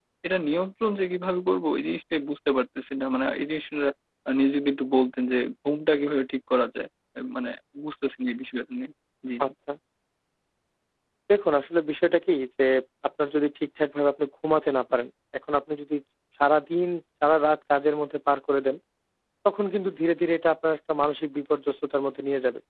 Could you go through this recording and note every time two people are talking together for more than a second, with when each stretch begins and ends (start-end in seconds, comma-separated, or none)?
none